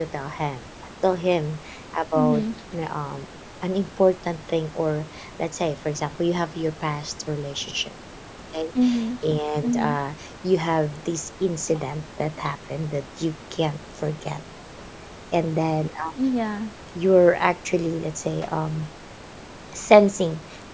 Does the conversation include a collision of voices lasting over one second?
No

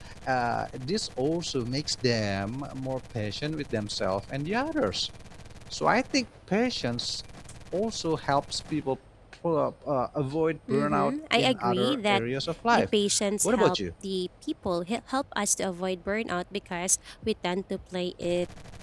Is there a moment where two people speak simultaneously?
Yes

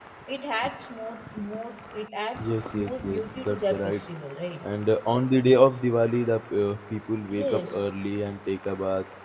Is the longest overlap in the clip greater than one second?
Yes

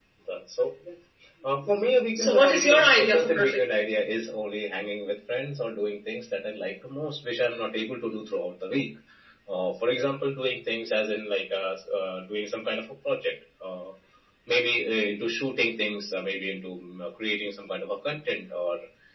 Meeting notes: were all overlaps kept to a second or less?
No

